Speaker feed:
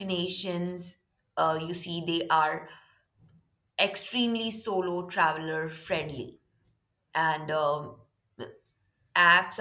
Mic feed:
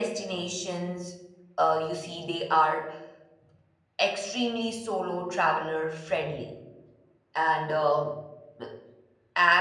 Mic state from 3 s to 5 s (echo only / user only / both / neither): echo only